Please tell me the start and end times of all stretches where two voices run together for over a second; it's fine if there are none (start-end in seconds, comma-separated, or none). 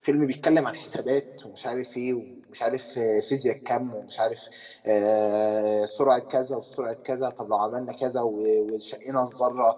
none